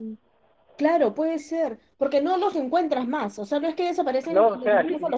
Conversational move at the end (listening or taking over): taking over